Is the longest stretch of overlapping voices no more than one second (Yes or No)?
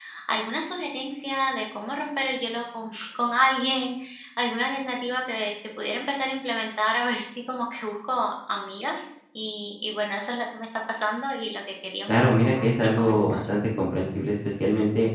No